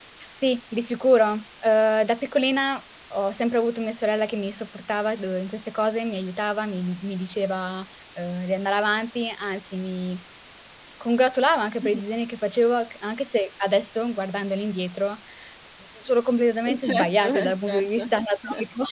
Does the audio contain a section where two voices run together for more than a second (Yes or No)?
Yes